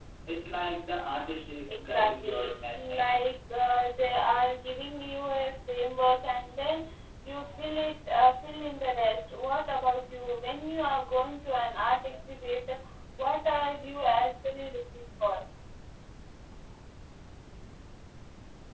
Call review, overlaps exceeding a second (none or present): present